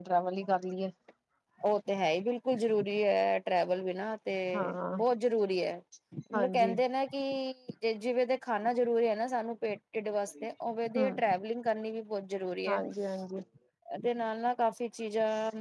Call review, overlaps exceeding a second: none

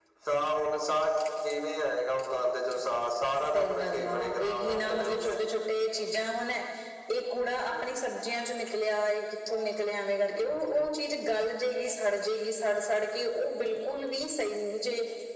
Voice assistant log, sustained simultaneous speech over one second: present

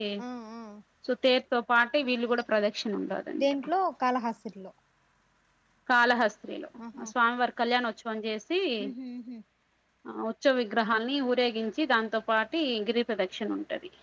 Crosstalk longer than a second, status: none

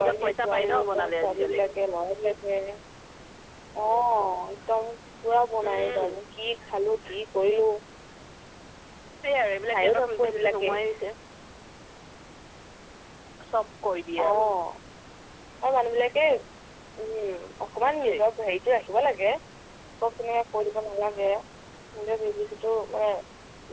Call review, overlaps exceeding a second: present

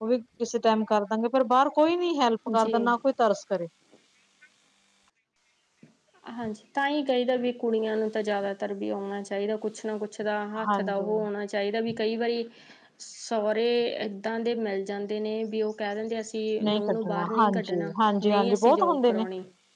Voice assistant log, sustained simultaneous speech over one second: present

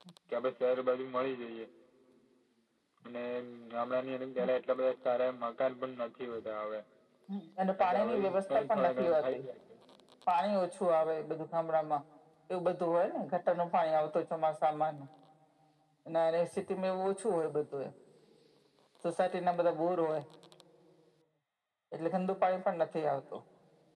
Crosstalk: present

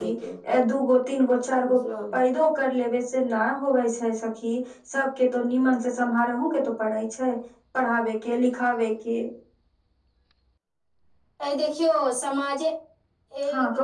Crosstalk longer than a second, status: none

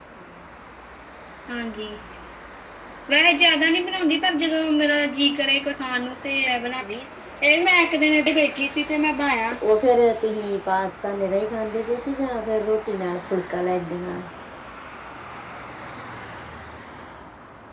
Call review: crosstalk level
none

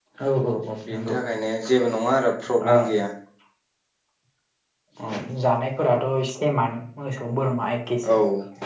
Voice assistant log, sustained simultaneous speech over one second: none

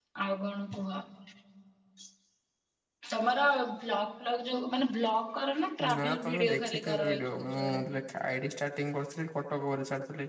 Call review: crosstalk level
present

